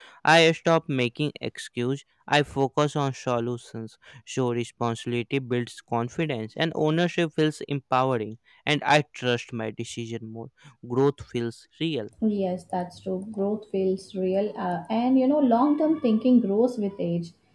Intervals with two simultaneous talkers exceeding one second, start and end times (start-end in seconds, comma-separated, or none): none